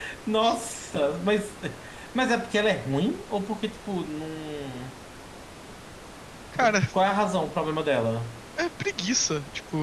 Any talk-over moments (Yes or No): No